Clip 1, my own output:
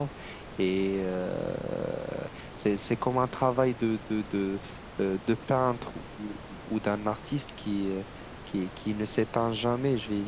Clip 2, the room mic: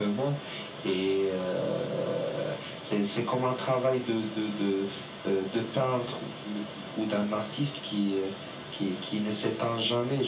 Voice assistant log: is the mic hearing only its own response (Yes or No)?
Yes